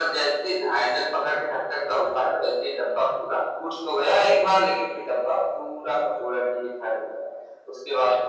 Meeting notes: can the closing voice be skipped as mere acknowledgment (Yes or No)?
Yes